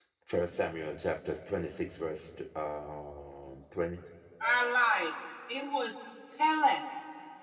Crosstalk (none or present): none